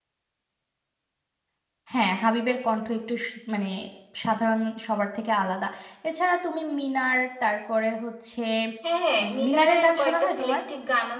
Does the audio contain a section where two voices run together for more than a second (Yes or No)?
Yes